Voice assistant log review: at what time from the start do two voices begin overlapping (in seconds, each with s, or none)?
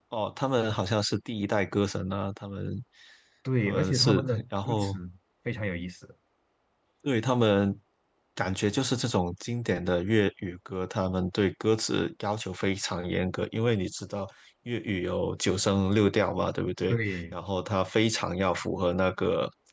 3.6 s